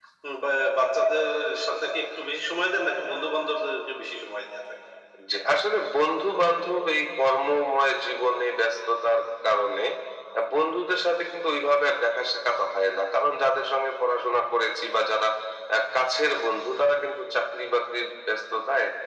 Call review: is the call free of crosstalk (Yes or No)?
Yes